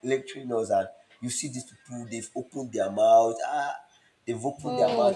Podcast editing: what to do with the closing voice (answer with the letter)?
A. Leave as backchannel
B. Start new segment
A